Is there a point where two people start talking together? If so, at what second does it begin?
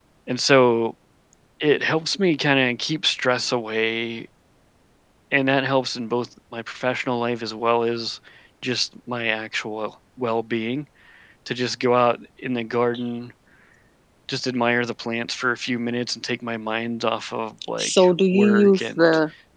17.8 s

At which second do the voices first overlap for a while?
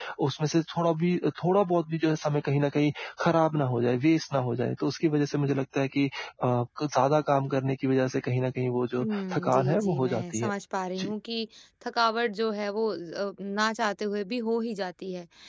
9.0 s

